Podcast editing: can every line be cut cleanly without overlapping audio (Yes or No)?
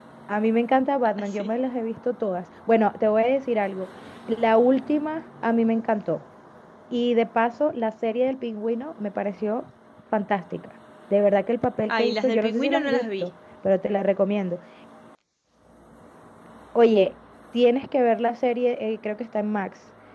No